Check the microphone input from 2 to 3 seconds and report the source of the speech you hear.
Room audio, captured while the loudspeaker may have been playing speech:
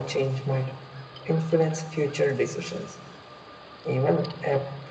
echo only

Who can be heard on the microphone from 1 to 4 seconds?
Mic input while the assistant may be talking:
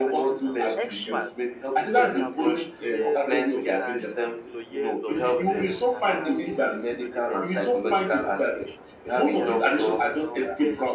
both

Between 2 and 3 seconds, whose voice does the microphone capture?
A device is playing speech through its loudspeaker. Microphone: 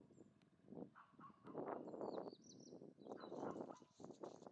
neither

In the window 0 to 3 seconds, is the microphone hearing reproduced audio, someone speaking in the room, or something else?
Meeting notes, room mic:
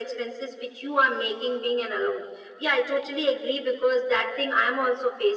echo only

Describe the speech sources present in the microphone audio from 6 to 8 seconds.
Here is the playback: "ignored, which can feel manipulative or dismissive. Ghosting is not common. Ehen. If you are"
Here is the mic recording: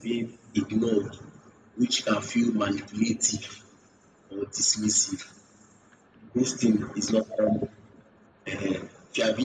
echo only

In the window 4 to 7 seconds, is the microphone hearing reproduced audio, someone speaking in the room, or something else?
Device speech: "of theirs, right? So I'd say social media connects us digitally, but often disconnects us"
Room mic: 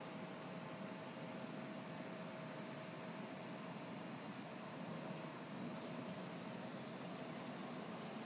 neither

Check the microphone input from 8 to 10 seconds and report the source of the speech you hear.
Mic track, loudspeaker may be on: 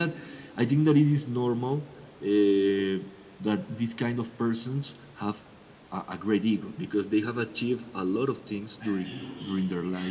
both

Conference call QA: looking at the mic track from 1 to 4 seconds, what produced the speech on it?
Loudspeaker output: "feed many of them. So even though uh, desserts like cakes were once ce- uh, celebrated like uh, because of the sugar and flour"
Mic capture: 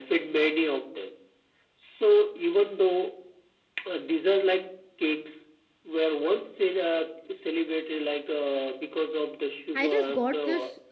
echo only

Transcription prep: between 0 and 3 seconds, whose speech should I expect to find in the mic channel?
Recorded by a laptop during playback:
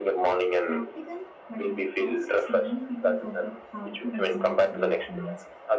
both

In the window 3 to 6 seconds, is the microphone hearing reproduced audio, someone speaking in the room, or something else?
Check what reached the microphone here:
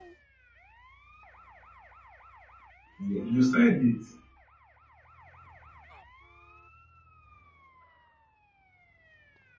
user only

